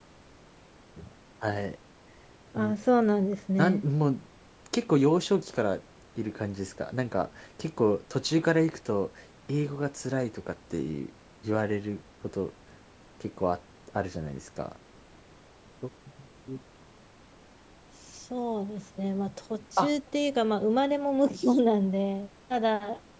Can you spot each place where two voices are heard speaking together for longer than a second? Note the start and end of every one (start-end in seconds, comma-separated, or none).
none